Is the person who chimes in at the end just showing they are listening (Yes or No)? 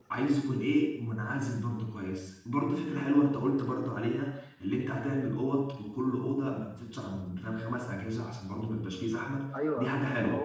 No